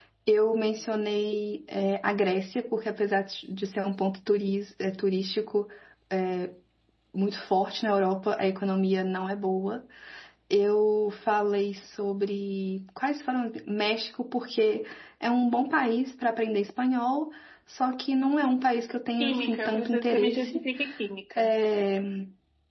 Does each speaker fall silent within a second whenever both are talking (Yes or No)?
No